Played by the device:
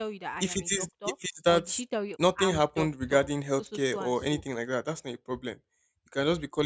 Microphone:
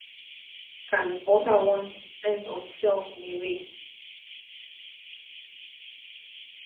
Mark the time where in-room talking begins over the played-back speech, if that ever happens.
1 s

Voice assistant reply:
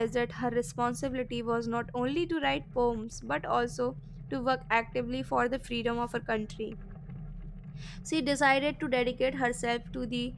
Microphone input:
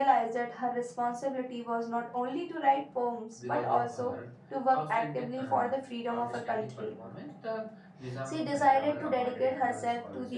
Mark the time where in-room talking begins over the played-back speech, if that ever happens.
3 s

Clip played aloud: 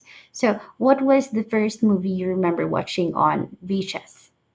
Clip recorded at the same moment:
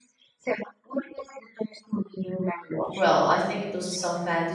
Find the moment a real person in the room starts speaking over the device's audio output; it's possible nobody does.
3 s

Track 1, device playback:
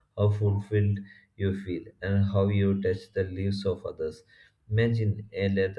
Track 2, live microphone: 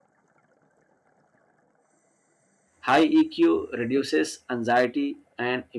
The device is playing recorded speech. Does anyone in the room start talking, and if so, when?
3 s

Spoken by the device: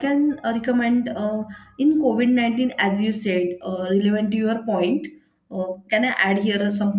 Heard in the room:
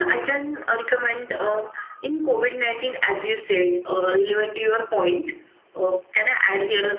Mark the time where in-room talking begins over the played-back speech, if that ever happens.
none

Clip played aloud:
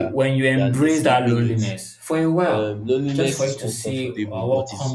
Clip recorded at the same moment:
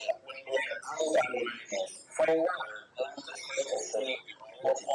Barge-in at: none

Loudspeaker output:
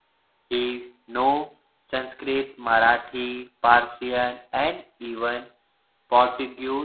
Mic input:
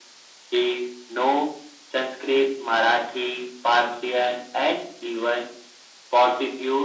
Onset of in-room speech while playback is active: none

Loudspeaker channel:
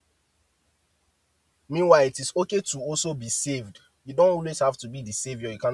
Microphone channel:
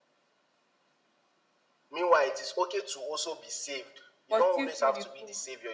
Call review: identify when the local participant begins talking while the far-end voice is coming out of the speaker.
4 s

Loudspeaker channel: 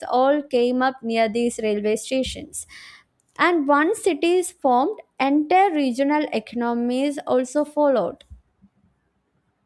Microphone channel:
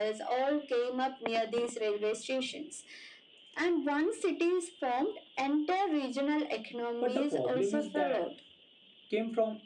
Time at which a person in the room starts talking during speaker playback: 7 s

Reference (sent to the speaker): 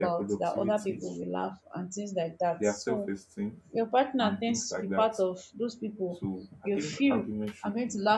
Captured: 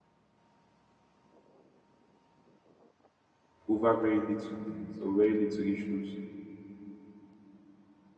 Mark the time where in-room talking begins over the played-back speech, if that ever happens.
4 s

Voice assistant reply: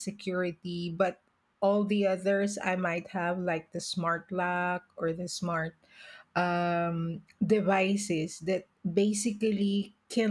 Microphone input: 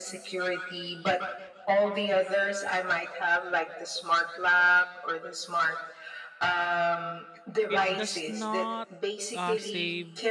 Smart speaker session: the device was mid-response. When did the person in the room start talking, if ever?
8 s

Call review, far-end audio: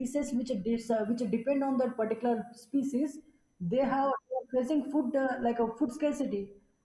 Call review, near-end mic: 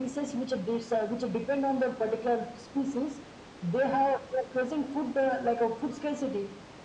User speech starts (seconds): none

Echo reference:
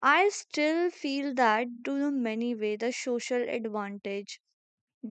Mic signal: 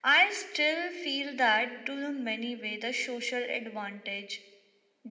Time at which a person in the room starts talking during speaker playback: none

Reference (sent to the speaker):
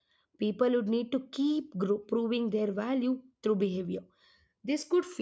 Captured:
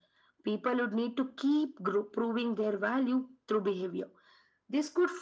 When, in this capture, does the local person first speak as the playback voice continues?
none

